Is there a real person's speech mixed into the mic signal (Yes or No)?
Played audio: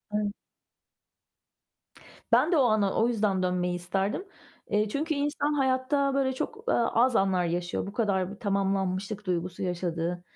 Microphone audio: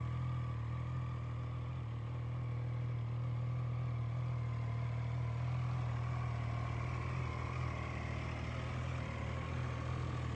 No